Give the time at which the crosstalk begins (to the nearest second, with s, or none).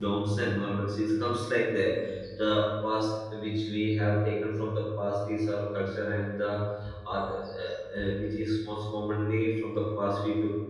none